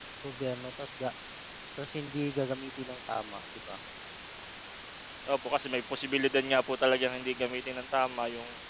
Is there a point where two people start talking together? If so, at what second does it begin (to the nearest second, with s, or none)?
none